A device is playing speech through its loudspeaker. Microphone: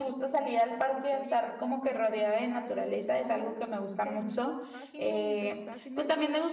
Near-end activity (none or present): present